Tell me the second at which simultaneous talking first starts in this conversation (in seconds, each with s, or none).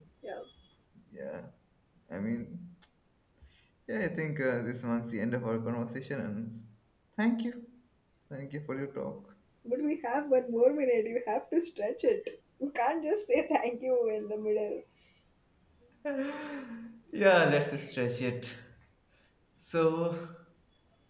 none